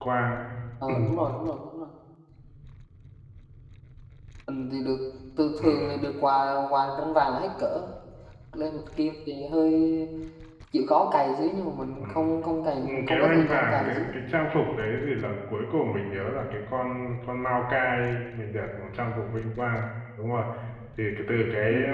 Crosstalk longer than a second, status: present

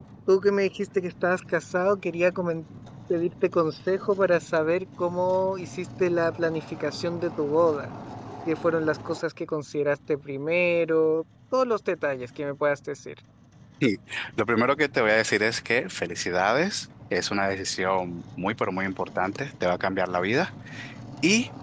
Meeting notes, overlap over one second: none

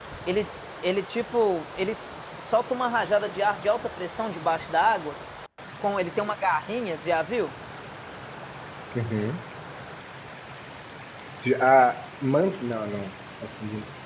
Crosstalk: none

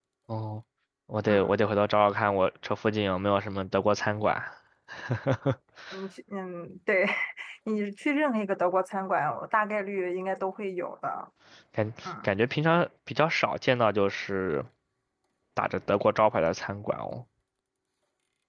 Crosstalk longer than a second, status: none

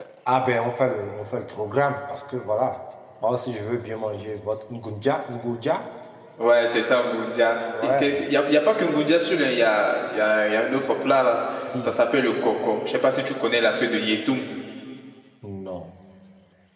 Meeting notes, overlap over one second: none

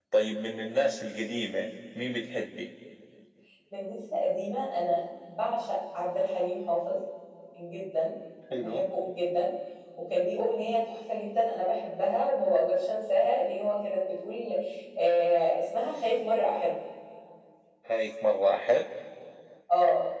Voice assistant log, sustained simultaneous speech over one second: none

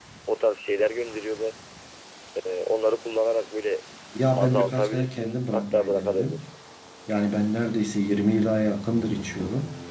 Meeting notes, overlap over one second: present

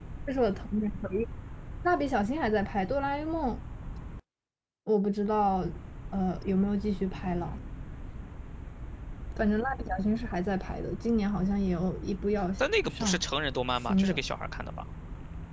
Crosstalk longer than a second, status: none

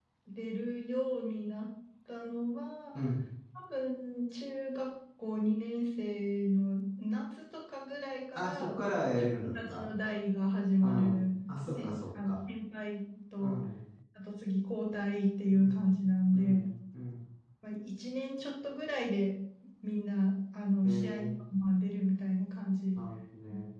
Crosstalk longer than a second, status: present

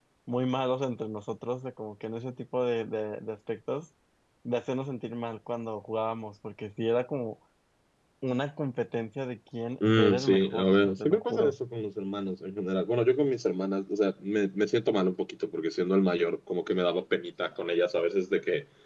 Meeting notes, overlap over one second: present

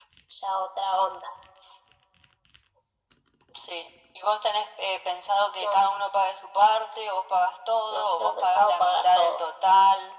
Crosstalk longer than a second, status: present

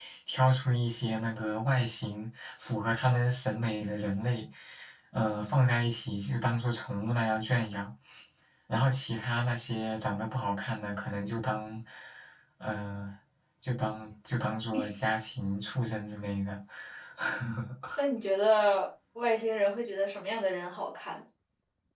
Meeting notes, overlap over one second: none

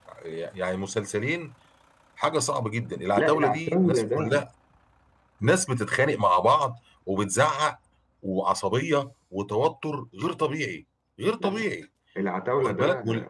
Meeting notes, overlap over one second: present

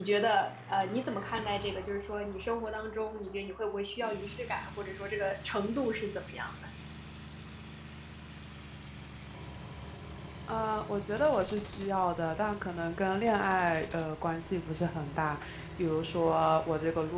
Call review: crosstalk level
none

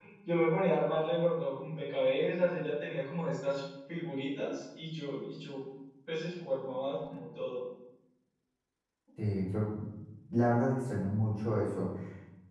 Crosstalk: none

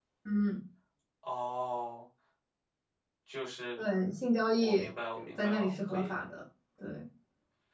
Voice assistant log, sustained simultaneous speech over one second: present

